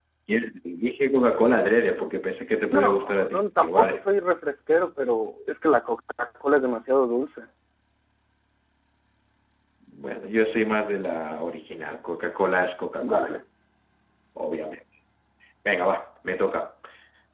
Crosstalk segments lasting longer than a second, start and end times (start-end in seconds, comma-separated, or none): 2.7-4.0